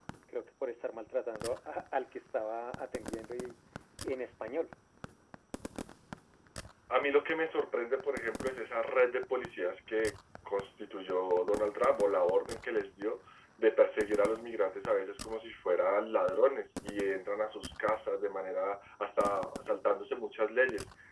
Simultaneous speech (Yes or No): No